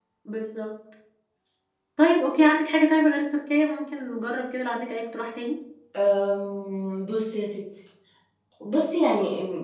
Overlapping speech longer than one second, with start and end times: none

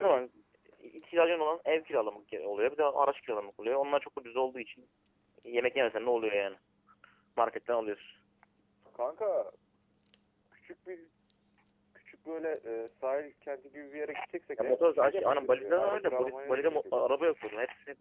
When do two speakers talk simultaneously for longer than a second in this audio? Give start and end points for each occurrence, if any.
14.6-17.3

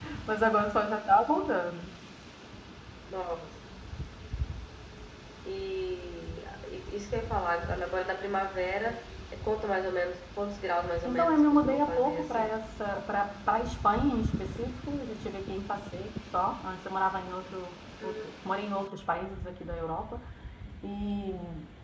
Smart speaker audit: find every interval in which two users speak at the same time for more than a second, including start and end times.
11.0-12.5

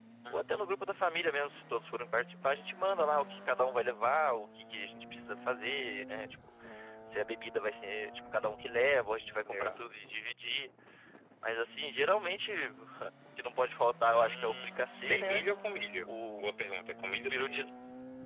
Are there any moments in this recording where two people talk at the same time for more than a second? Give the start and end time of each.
14.0-15.4

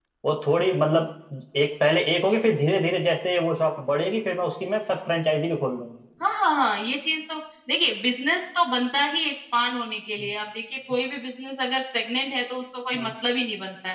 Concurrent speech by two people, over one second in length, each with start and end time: none

